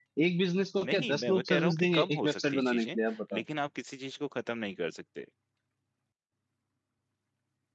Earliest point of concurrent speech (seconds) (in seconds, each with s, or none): 0.8 s